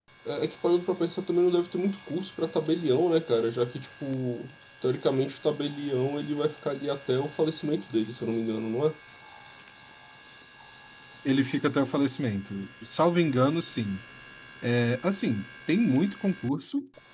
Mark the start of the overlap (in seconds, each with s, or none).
none